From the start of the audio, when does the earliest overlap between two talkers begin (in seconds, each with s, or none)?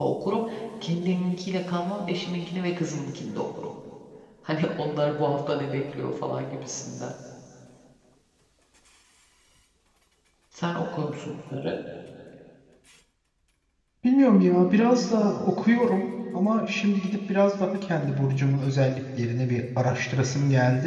none